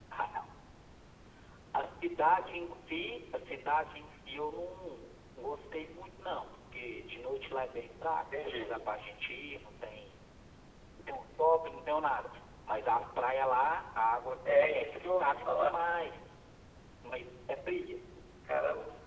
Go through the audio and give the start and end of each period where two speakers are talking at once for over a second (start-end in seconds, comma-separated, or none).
14.5-15.7